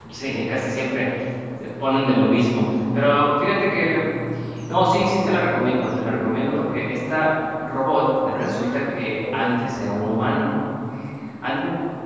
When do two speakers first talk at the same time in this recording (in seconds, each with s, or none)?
8.3 s